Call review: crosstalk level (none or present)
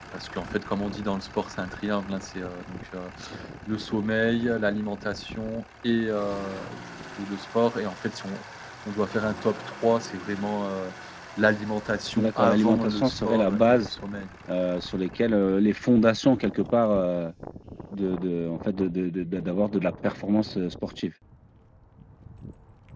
present